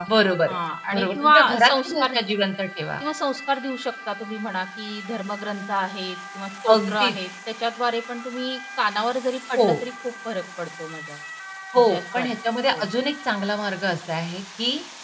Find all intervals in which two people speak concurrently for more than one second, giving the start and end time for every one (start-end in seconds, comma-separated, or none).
0.9-2.2